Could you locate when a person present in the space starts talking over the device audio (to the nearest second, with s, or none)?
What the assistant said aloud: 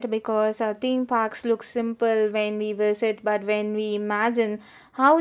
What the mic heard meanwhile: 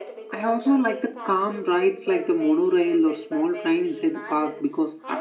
0 s